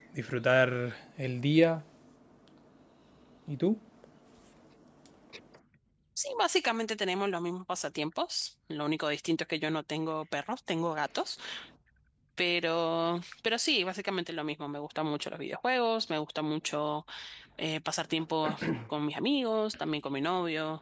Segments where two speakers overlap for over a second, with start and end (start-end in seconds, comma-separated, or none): none